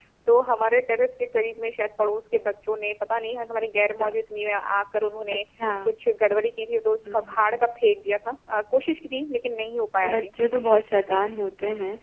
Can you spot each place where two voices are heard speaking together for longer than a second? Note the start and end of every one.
none

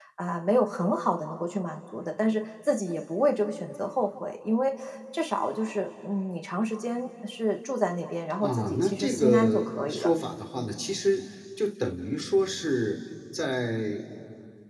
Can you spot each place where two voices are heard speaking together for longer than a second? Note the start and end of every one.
8.4-10.1

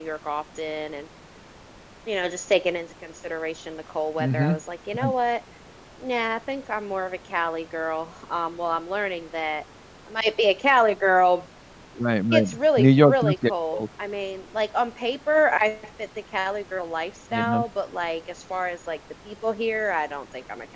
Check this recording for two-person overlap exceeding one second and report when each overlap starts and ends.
12.3-13.8

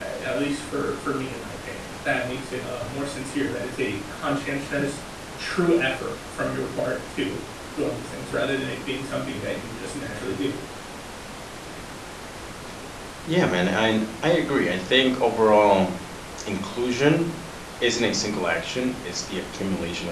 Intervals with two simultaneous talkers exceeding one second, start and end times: none

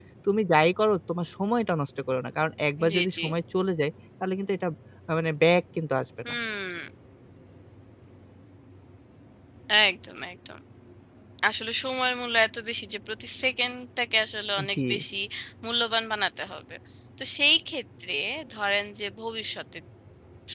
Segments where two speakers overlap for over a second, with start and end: none

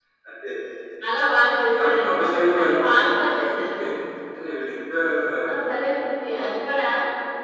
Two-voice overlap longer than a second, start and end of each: 1.8-3.8

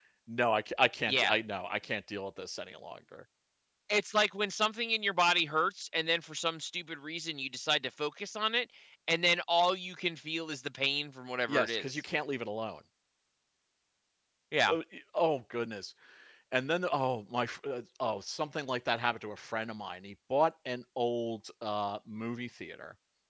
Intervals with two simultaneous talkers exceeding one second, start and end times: none

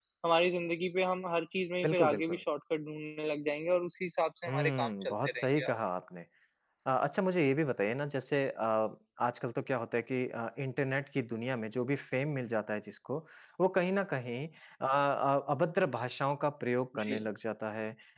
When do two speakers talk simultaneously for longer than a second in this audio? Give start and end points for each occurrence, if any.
4.5-5.8

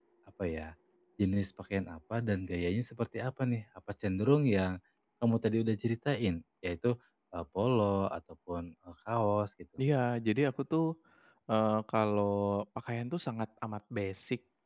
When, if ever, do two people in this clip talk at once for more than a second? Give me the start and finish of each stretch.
none

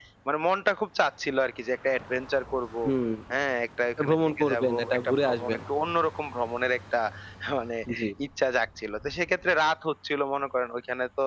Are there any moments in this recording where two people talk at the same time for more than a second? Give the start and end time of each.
4.0-5.6

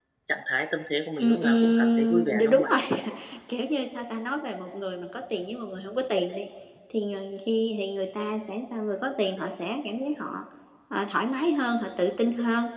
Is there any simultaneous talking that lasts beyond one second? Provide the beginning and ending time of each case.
1.2-2.7

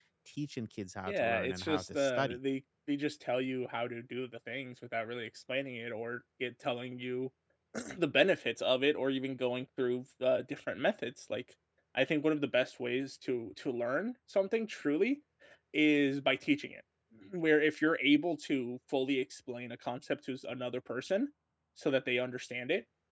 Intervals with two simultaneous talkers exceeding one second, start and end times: 1.1-2.4

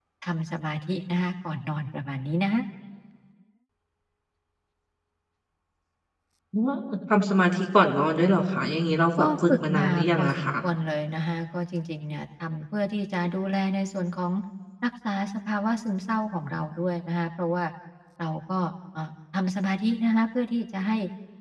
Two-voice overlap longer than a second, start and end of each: 9.2-10.5

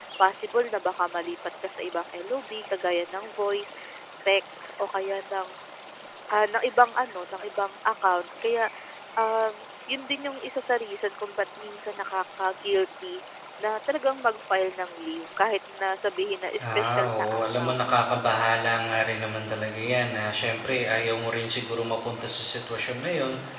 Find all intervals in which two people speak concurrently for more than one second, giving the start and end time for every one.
16.6-17.8

